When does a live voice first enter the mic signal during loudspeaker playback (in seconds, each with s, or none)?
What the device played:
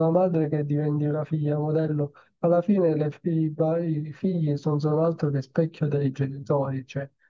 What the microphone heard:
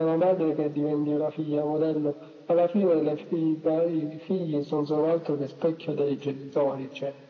none